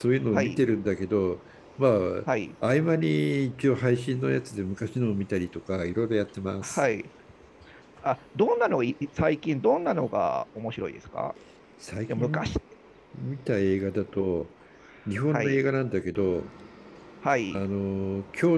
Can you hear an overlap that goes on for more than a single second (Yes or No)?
No